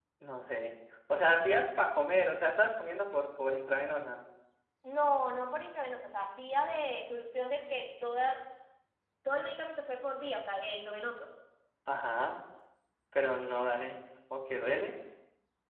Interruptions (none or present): none